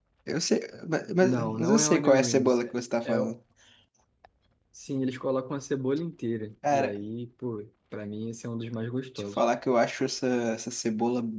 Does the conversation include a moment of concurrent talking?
Yes, from 1.2 s

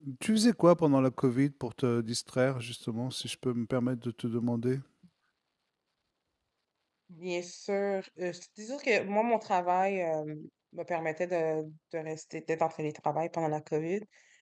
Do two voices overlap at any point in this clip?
No

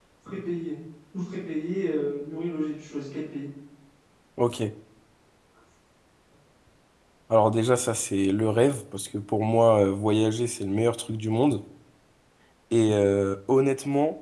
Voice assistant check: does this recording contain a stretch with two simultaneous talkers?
No

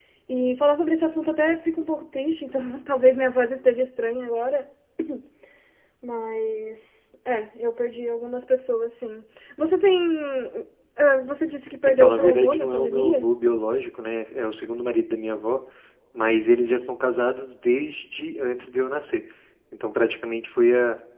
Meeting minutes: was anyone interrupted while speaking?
Yes, from 11.8 s

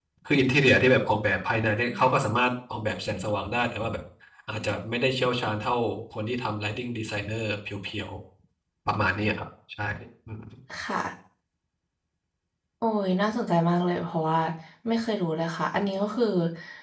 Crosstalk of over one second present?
No

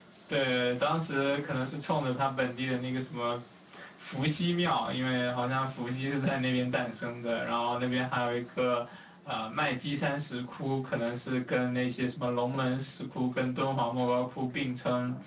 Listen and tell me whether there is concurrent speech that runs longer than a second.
No

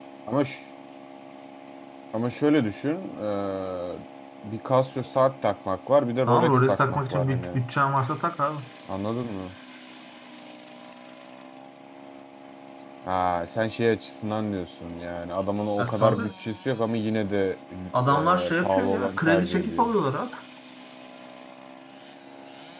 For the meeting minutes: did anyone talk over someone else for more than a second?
Yes, from 6.3 s

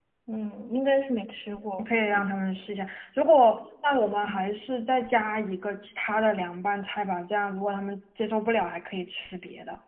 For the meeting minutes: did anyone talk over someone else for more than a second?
No

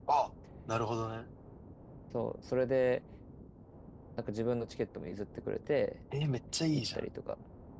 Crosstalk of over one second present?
No

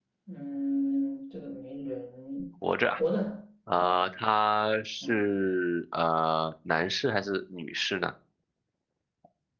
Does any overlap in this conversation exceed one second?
No

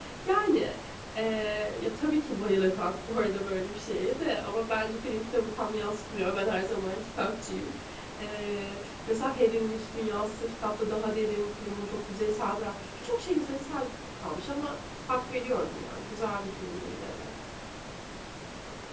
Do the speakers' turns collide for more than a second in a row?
No

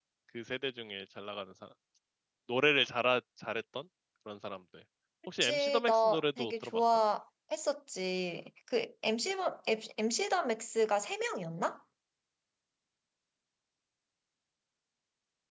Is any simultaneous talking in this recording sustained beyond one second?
Yes, from 5.4 s

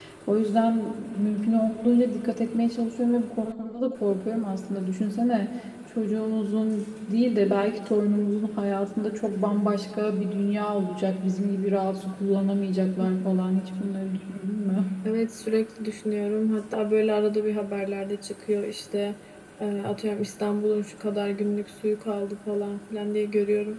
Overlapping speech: No

